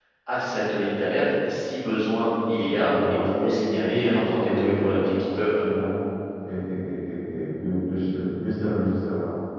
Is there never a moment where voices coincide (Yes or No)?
No